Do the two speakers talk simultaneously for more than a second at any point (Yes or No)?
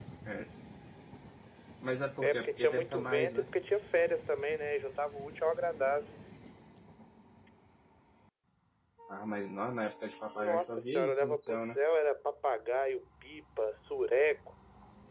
Yes